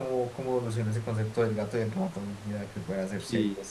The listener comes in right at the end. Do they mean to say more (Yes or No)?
Yes